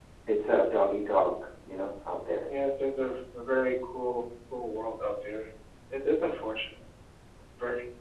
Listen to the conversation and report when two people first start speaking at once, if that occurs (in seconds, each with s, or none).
none